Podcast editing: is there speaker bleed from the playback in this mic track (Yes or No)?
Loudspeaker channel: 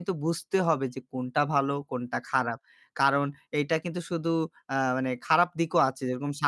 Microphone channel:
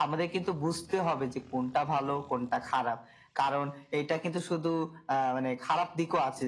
Yes